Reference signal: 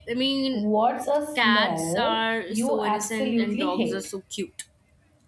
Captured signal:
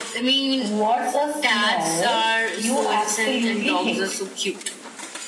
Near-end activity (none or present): none